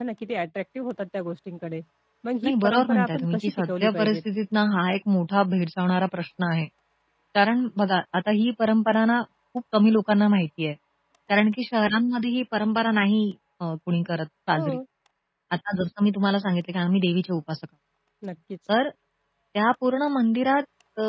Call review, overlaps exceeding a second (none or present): present